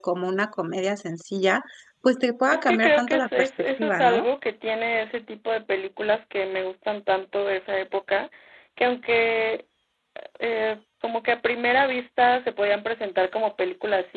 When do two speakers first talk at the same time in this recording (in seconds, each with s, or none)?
2.5 s